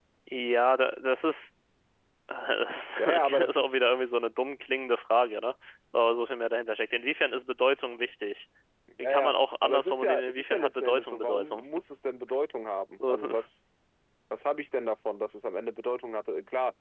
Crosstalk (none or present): present